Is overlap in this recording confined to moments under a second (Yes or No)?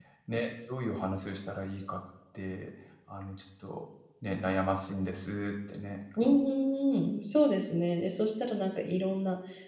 Yes